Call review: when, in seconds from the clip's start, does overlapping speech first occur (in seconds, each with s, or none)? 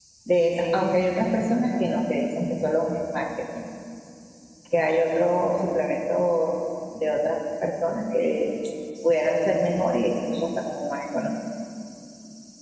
none